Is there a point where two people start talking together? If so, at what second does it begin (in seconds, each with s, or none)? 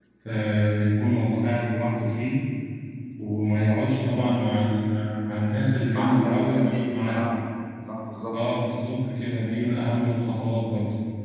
5.9 s